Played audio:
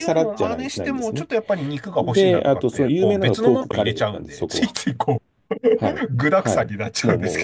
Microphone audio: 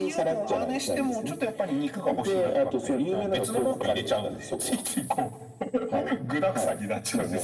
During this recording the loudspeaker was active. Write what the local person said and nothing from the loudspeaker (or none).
none